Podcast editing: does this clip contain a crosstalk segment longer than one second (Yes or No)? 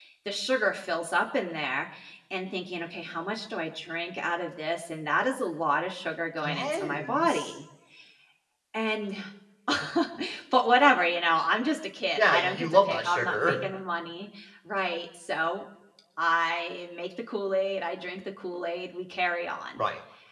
Yes